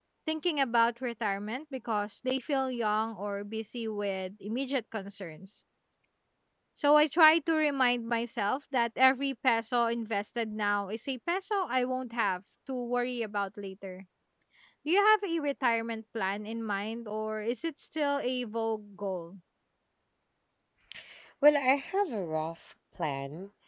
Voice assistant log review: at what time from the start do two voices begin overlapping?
none

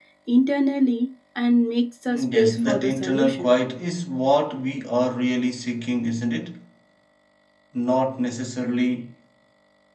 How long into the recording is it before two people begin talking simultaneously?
2.1 s

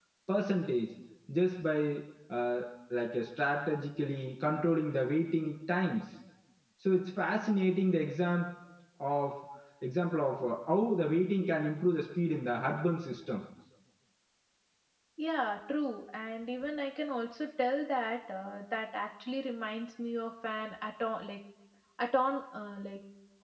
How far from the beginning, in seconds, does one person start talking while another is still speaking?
none

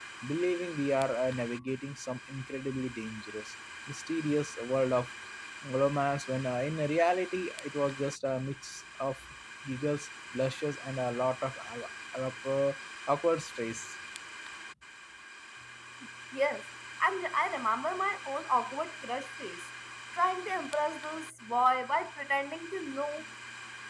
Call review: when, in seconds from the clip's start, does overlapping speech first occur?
none

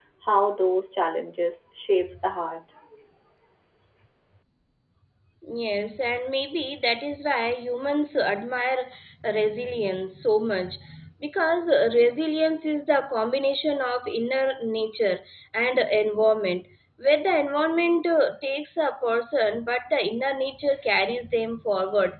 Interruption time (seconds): none

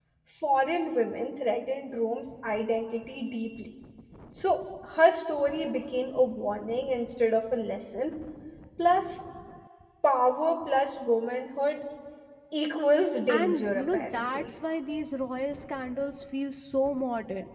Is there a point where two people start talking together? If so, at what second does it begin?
13.3 s

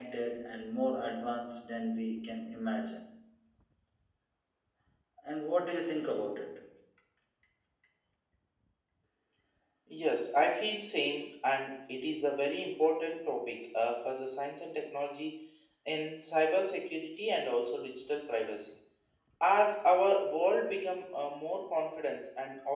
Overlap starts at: none

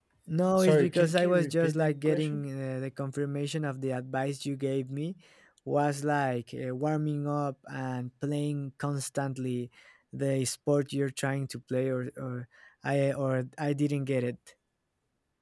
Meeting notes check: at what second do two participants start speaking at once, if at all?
0.6 s

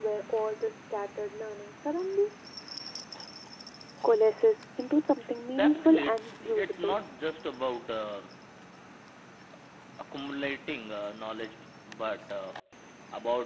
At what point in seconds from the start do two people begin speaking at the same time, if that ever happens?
5.6 s

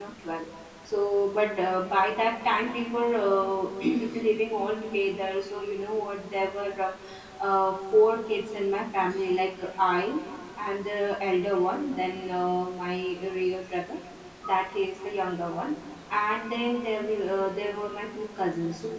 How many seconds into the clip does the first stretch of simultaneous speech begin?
none

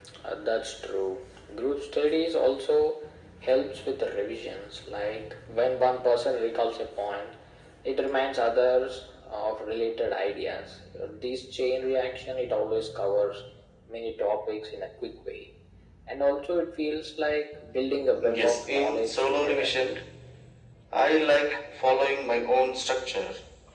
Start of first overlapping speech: 18.2 s

